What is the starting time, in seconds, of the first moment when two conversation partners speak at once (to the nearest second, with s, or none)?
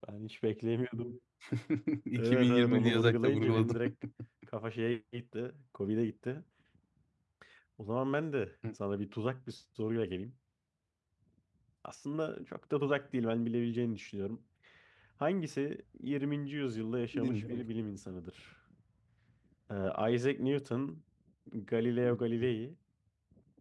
2 s